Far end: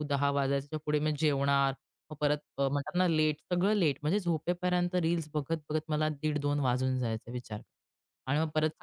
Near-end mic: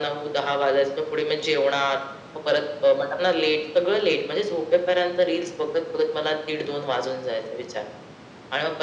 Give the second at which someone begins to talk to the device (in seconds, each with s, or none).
none